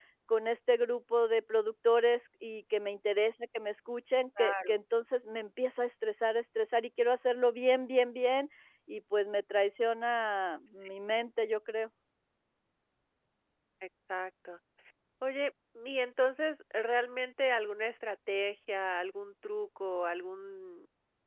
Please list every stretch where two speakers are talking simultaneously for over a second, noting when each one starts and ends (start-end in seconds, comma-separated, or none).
none